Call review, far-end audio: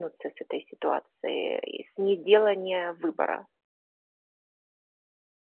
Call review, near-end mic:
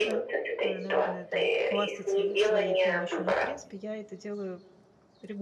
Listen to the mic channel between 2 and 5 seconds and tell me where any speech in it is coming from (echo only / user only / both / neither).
both